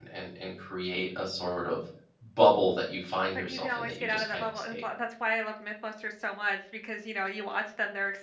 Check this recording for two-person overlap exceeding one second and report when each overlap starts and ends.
3.5-4.8

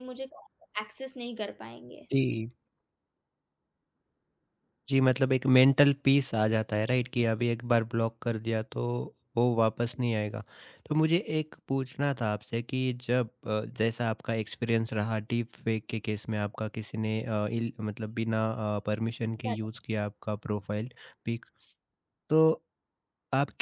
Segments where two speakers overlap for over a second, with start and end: none

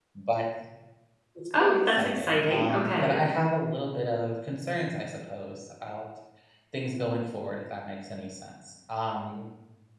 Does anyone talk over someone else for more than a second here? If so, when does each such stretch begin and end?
1.6-3.2

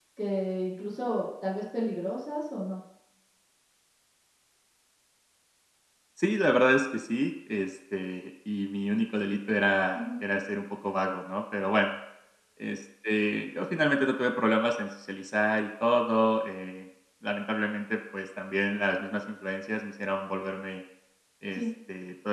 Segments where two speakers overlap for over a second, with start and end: none

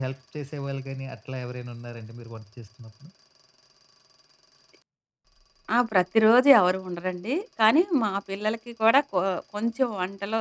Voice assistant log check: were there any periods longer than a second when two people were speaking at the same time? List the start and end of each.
none

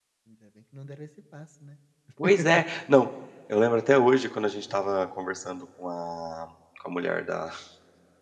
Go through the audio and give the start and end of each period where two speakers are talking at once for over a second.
none

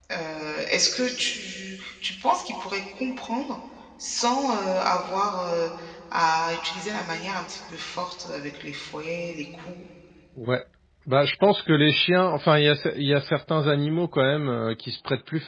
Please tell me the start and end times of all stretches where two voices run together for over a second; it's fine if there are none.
none

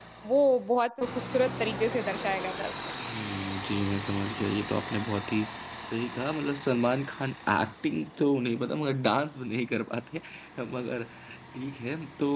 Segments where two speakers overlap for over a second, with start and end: none

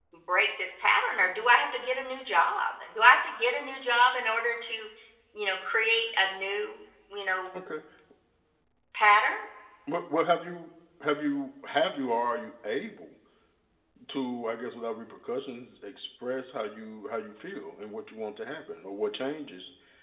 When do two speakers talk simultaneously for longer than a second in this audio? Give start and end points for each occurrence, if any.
none

